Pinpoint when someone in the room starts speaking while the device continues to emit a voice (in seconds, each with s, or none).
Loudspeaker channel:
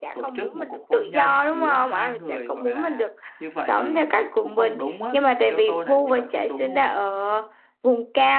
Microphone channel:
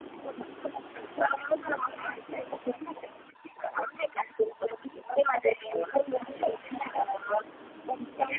none